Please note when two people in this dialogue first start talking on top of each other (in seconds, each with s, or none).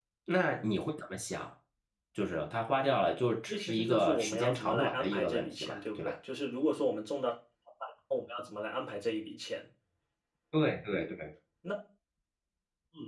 3.5 s